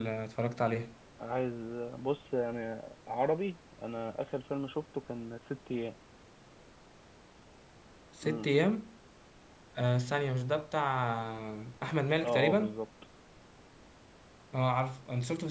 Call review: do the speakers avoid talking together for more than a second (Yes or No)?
Yes